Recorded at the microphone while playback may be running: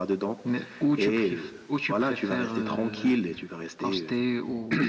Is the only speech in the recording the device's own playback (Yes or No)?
Yes